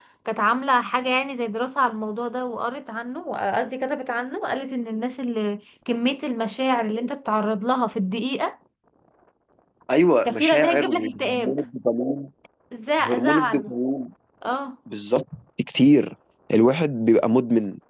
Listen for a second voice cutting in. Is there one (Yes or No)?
Yes